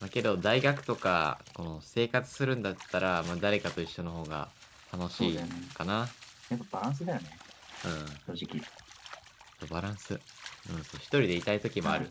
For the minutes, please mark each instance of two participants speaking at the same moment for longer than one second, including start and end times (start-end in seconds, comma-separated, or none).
none